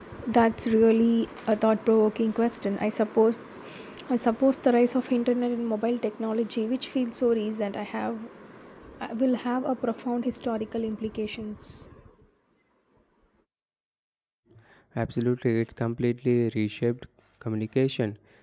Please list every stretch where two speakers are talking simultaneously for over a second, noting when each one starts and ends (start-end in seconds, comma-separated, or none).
none